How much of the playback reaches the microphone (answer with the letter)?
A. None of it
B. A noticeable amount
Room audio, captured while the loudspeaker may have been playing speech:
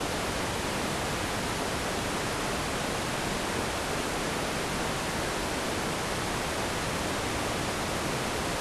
A